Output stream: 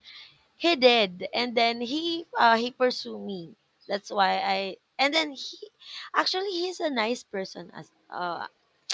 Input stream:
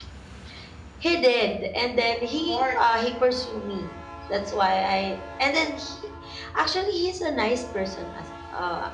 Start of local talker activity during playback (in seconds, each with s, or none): 2.4 s